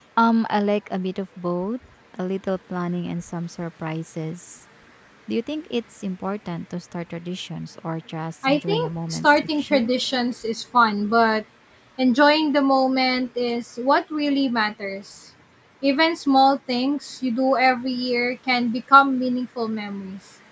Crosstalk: present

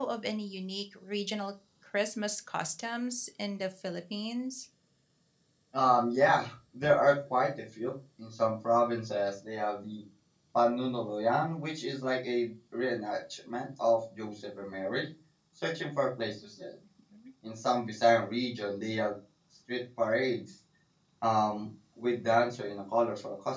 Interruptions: none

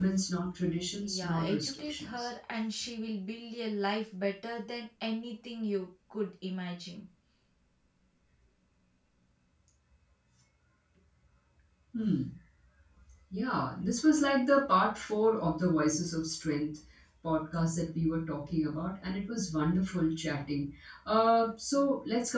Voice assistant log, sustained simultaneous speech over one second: present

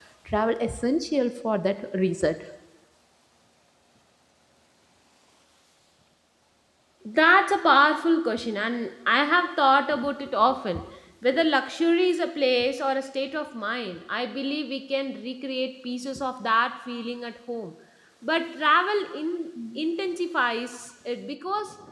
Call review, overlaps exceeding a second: none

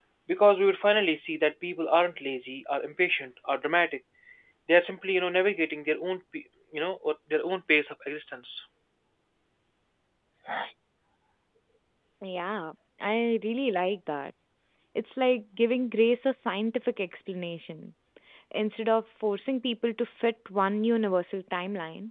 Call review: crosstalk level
none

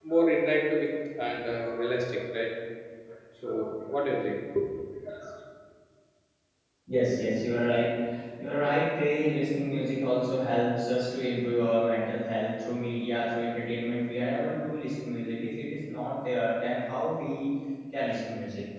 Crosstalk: none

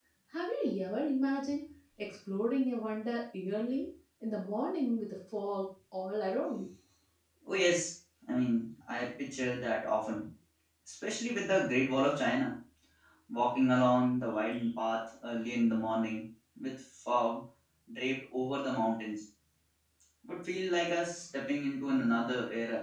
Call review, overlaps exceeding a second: none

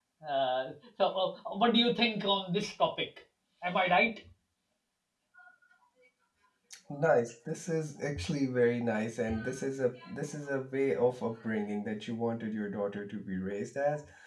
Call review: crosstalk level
none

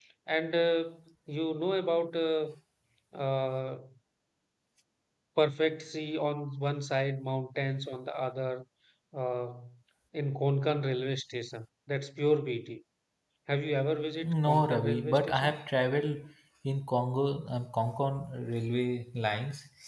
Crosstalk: present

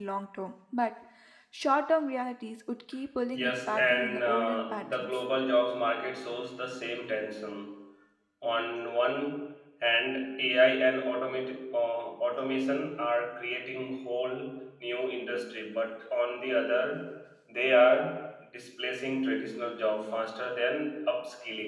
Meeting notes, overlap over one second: present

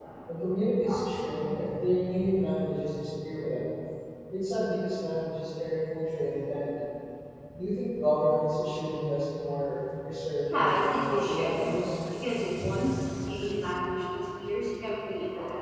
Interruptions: present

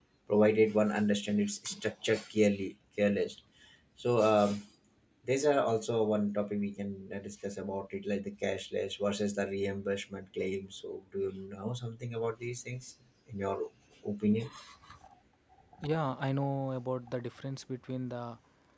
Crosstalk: none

